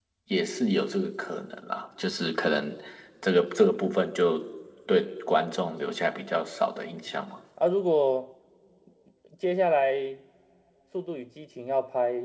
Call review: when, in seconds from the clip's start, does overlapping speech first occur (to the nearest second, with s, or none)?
none